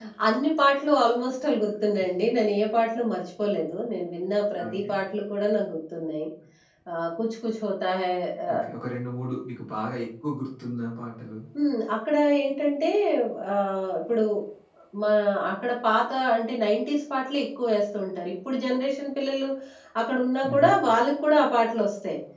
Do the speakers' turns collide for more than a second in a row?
No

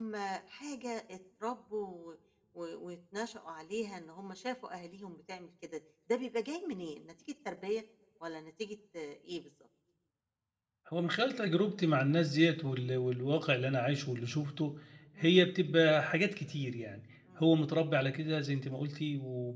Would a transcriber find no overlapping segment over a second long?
Yes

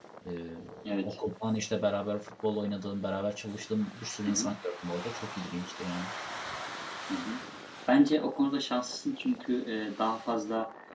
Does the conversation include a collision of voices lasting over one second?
No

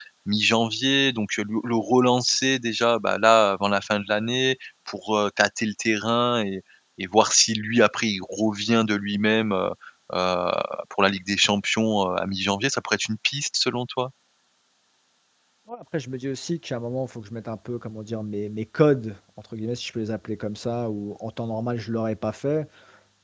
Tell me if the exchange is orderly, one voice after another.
Yes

